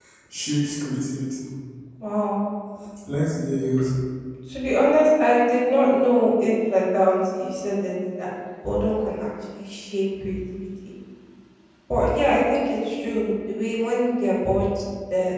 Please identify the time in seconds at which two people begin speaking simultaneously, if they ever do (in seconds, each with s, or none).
none